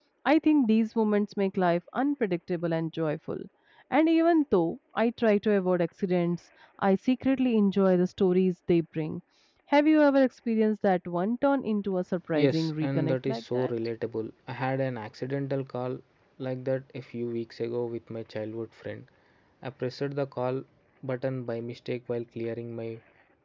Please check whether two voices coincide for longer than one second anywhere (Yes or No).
Yes